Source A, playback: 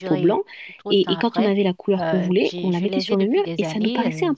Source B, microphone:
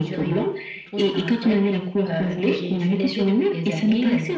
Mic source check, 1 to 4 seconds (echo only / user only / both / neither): echo only